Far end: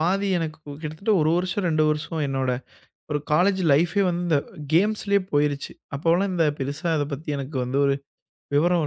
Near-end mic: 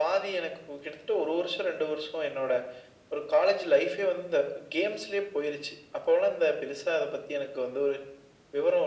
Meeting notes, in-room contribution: none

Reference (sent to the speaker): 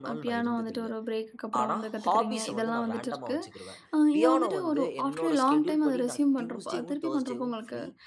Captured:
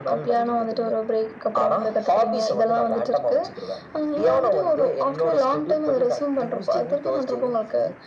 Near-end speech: none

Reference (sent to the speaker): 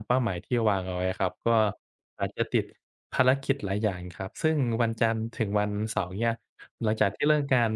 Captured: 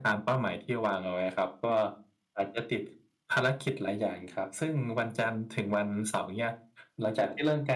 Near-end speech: none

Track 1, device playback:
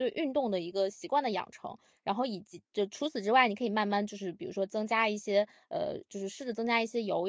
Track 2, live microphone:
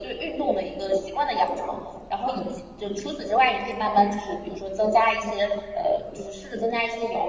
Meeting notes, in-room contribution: none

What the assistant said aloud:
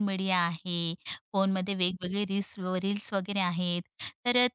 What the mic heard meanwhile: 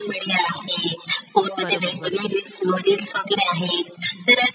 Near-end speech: present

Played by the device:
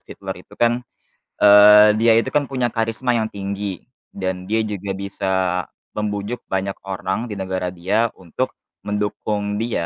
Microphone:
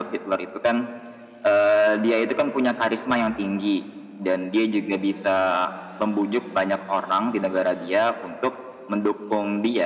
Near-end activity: none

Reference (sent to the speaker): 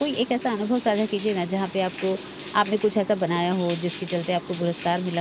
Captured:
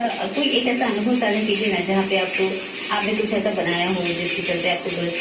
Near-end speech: none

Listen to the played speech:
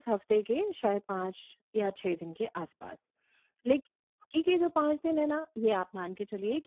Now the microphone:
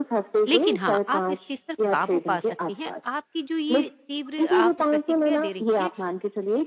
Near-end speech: present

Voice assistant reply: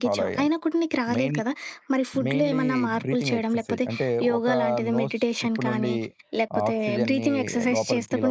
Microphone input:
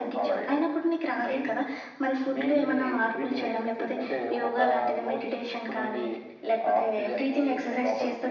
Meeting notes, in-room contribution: none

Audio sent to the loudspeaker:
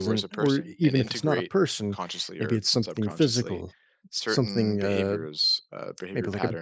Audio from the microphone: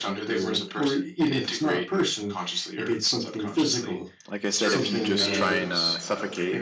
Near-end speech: present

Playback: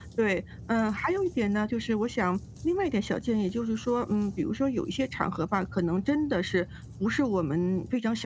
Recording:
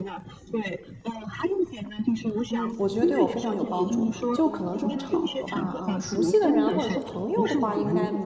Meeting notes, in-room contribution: present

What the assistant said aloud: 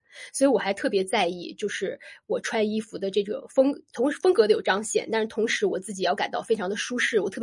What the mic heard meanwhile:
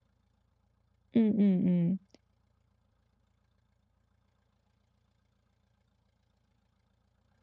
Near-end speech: present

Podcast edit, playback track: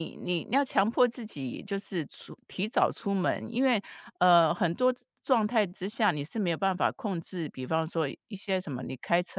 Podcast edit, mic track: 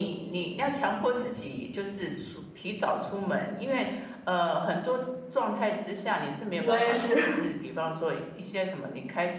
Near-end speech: present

